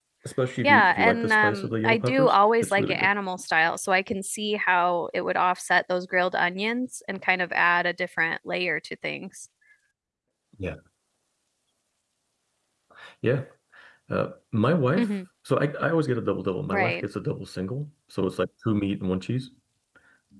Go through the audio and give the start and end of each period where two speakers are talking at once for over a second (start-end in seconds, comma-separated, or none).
0.6-3.1